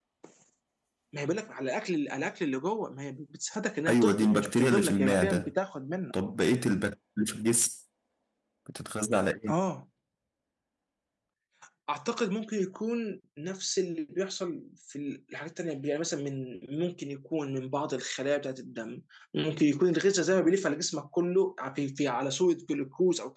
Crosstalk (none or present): present